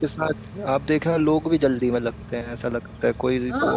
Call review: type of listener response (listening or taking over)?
listening